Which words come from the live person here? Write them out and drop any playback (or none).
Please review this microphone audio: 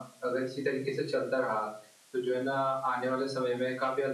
none